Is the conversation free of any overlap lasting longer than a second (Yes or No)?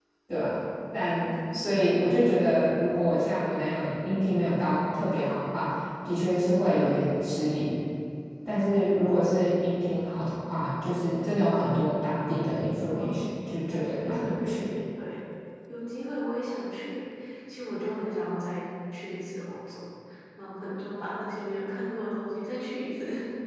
No